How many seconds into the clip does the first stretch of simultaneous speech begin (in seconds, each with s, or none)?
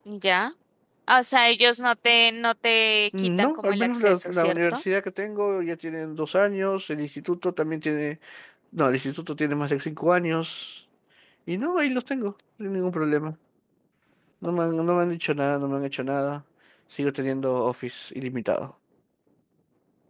3.1 s